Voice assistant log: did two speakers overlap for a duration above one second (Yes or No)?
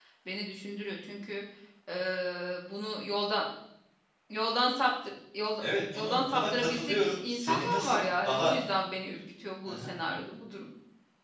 Yes